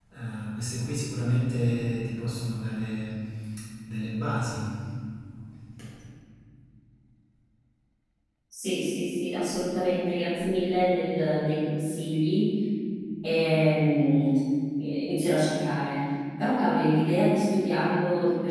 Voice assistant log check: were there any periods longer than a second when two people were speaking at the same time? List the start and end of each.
none

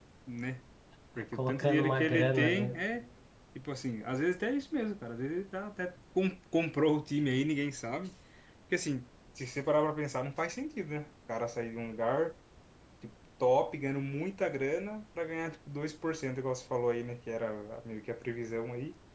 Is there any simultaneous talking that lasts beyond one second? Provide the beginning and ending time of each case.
1.3-2.7

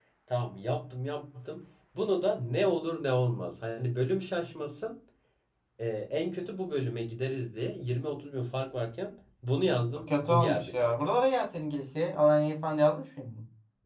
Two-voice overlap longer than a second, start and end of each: 9.9-11.1

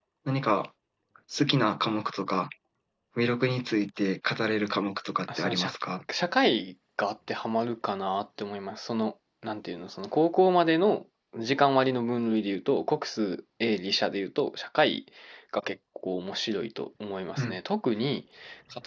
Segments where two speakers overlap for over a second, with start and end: none

